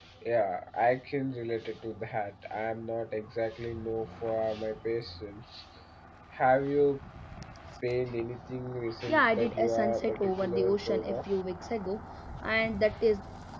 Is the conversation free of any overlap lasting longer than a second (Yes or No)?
No